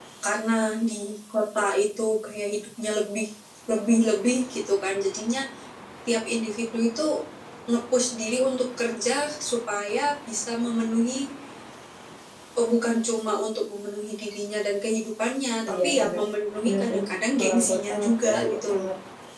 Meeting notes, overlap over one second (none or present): present